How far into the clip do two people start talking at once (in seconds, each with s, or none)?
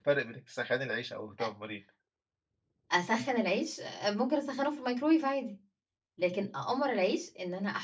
none